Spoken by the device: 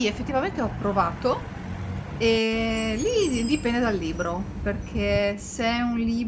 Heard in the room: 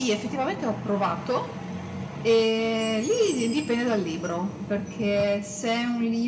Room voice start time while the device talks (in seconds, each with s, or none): none